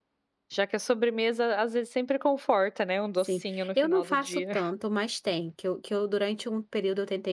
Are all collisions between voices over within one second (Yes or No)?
No